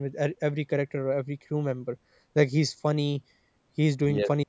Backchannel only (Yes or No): Yes